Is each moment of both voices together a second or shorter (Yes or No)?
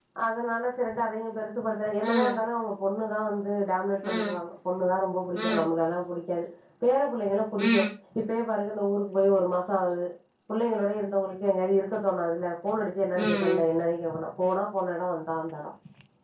Yes